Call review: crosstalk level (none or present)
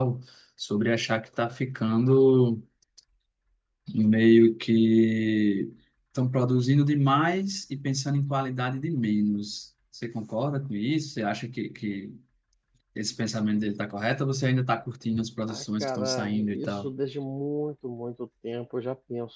present